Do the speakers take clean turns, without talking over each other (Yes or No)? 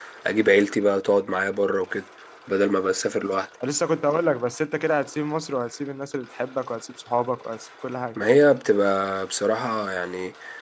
Yes